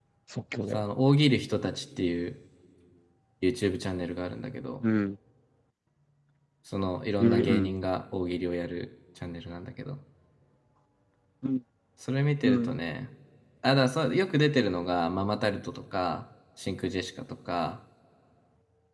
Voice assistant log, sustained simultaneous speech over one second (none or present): none